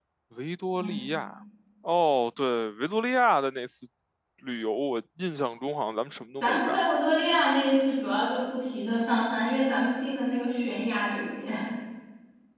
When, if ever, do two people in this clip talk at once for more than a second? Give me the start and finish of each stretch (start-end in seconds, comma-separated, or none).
none